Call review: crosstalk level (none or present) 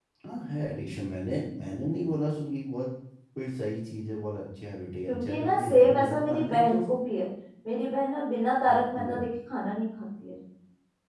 present